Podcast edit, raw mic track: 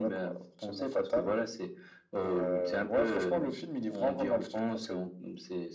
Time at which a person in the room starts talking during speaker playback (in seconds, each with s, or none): none